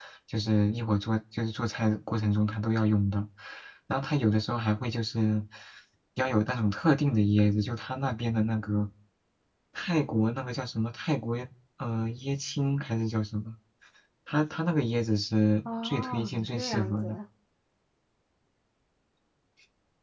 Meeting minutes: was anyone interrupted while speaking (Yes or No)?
Yes